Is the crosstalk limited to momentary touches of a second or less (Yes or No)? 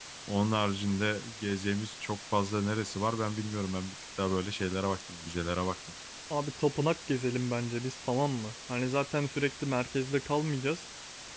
Yes